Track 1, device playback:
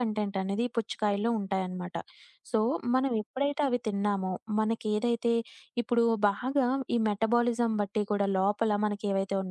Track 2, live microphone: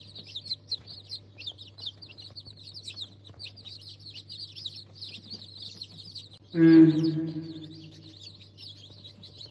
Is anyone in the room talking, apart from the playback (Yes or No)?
Yes